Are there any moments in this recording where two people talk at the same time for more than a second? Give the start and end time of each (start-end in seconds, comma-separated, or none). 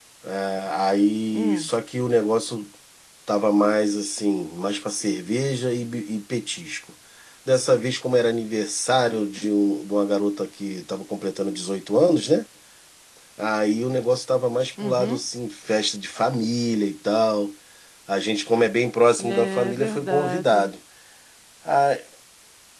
19.3-20.7